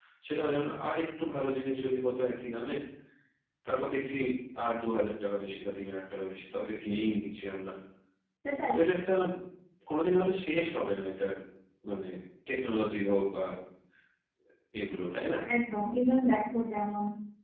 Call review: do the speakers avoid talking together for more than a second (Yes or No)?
Yes